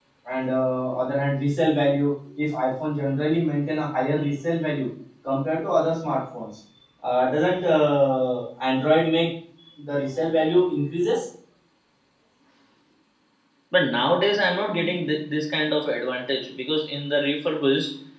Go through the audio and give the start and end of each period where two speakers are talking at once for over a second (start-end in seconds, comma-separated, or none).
none